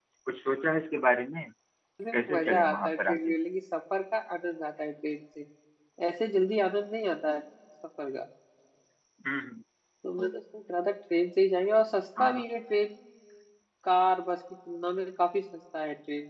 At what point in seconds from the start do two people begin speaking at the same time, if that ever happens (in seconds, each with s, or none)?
2.1 s